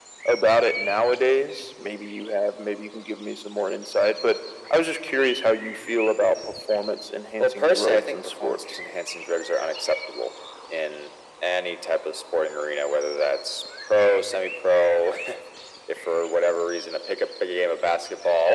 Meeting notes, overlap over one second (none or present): present